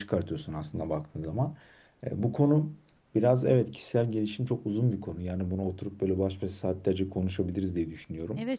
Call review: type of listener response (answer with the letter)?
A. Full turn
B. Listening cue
A